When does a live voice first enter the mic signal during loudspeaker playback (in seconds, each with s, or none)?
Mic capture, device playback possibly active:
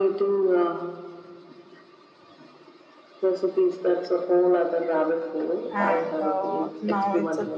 5.7 s